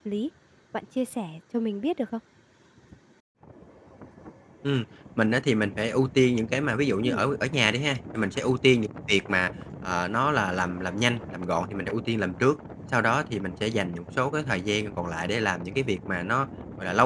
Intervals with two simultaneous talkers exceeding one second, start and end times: none

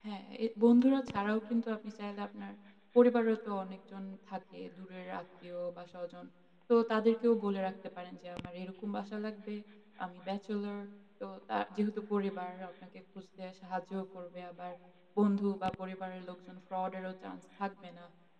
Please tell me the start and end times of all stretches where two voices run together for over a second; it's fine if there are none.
none

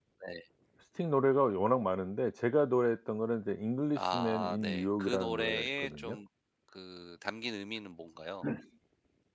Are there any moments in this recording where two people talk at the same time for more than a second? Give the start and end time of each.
4.0-6.2

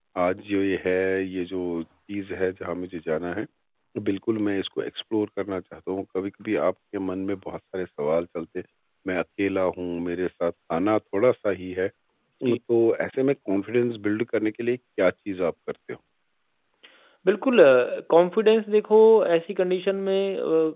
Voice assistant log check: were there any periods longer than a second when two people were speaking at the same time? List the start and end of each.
none

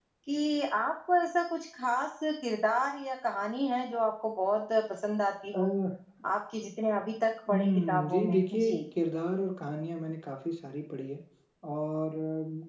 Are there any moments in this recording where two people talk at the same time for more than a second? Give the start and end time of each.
7.5-8.8

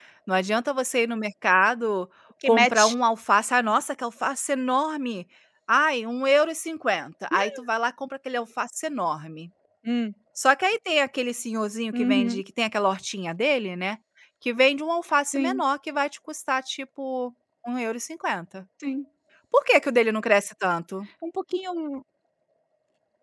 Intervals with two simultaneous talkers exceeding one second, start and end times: none

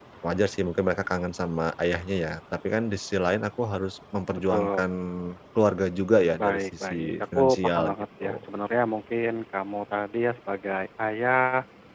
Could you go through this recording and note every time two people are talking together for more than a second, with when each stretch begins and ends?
6.4-8.4

